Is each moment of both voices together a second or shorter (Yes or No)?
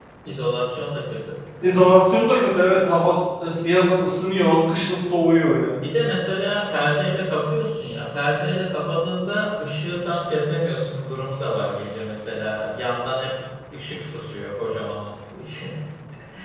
Yes